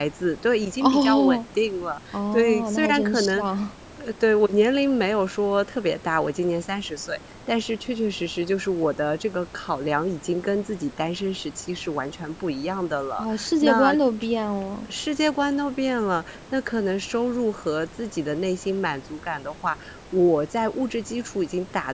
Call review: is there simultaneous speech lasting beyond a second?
Yes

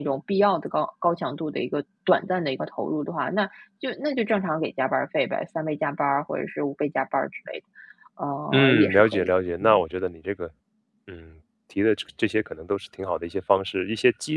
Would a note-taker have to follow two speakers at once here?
Yes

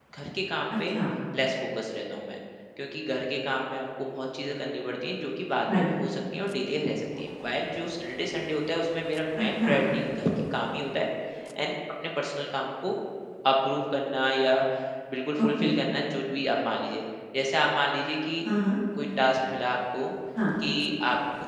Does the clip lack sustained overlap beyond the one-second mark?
Yes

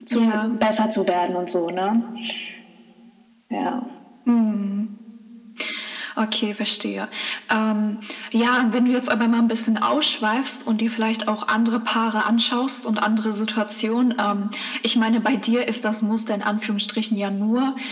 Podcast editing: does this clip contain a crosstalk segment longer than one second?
No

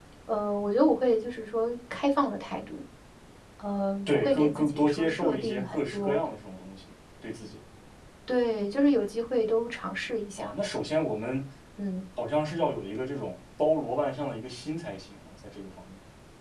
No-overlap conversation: No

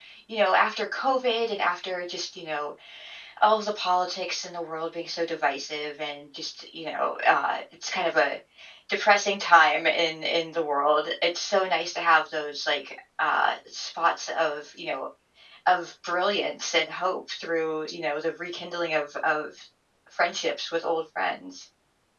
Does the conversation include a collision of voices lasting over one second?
No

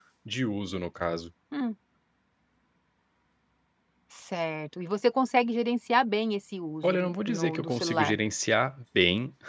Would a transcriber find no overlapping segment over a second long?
No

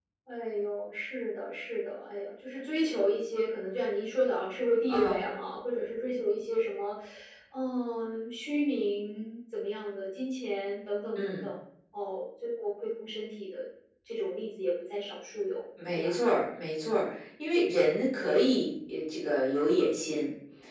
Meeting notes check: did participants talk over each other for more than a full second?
No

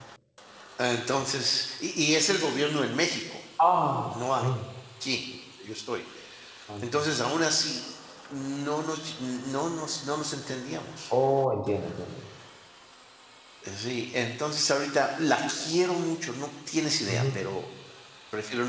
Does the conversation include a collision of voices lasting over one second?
No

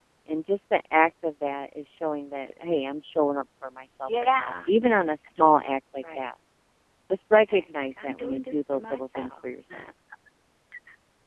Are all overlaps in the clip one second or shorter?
No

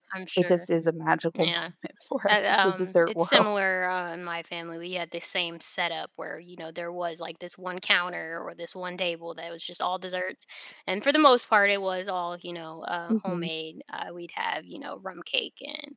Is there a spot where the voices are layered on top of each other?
Yes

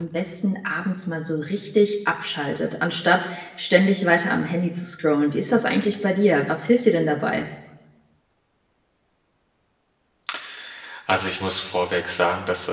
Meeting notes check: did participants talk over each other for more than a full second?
No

